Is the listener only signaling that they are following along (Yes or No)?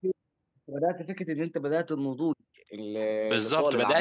No